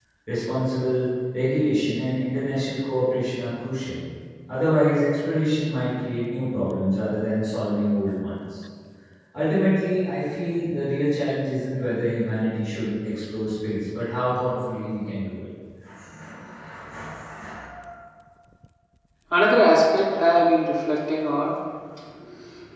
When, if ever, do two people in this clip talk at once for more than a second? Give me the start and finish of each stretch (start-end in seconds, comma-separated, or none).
none